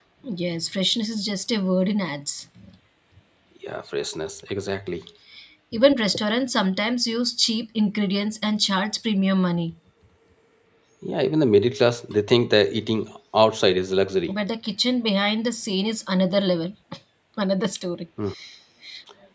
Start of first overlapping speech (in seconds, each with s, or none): none